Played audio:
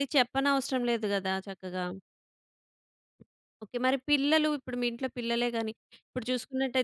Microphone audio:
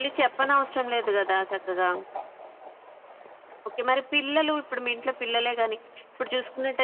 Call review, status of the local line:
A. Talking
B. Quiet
B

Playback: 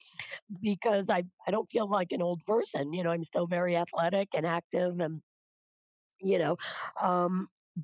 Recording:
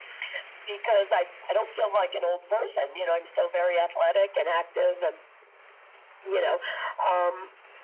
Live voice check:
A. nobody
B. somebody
A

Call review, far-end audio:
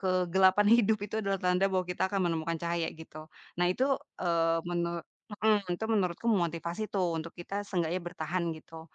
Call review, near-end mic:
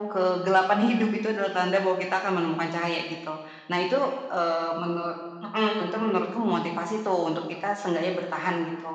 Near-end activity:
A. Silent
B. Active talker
A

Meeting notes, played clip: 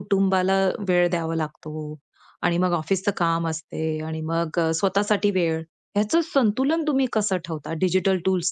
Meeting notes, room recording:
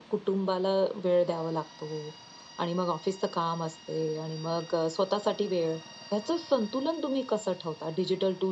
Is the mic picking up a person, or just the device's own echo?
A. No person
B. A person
A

